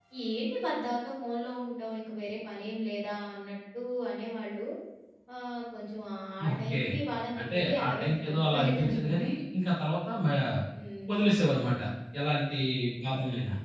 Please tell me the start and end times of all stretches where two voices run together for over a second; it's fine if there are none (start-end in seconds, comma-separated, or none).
7.4-9.2